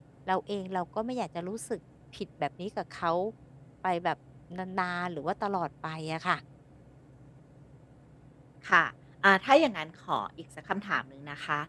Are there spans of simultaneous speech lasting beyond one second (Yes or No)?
No